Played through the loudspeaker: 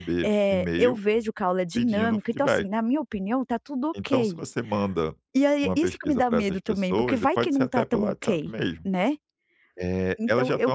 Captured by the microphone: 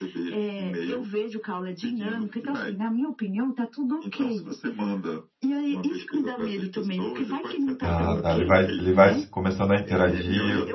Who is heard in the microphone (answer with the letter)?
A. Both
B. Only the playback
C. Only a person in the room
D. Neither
A